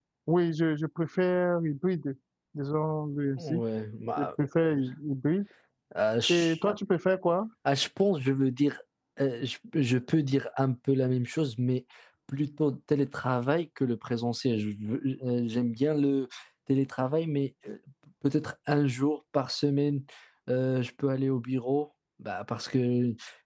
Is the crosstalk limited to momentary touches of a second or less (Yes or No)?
Yes